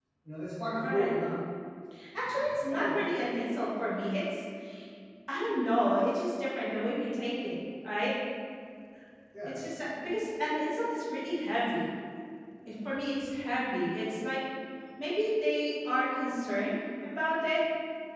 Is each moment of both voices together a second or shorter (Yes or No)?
Yes